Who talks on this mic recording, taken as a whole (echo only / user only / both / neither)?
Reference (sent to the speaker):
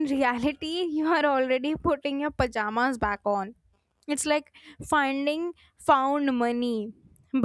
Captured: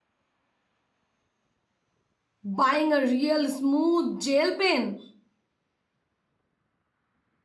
user only